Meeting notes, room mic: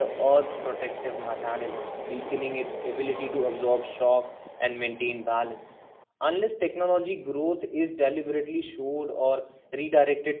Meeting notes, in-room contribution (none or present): present